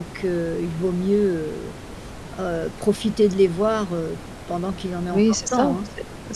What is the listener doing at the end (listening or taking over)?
taking over